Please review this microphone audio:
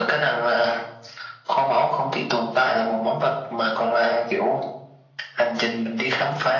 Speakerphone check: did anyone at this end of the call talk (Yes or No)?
No